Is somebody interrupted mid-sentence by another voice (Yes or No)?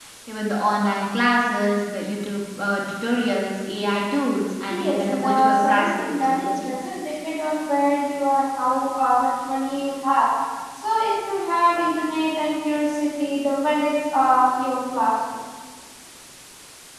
Yes